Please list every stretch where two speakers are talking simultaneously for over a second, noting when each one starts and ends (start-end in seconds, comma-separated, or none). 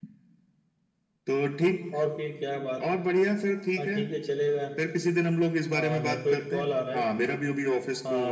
5.7-7.0